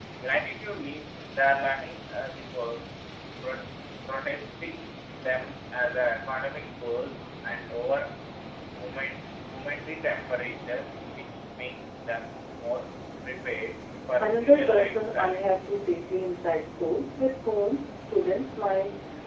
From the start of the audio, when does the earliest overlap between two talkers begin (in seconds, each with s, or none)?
14.2 s